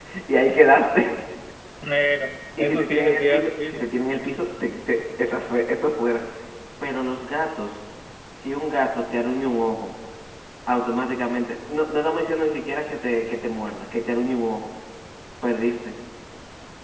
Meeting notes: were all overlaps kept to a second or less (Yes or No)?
No